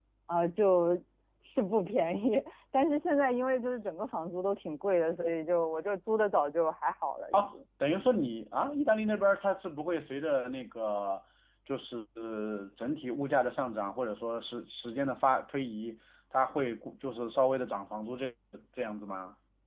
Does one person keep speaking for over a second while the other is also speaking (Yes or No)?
No